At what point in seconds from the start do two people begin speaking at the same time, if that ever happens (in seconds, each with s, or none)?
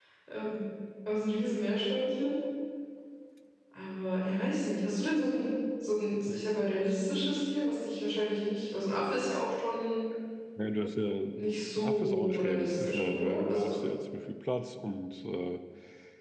11.8 s